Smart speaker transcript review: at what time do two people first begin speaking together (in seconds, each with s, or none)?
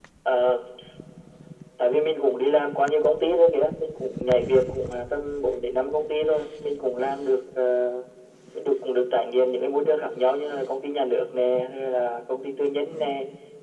none